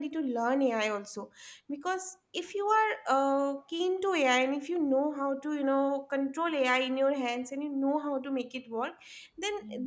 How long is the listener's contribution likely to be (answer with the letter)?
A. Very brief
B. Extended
A